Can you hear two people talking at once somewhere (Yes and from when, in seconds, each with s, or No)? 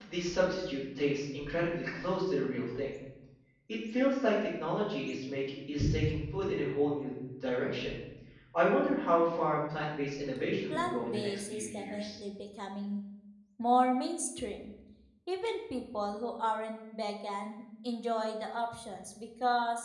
Yes, from 10.7 s